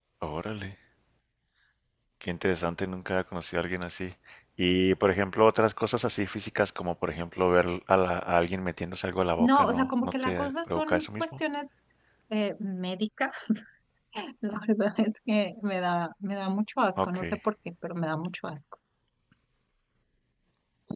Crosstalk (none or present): present